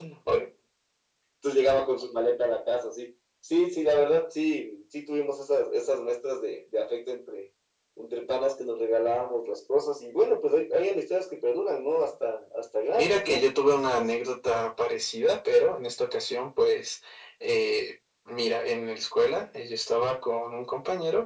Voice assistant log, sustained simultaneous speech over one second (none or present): none